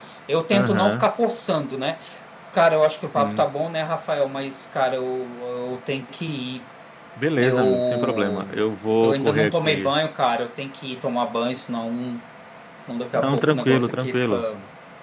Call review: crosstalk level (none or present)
present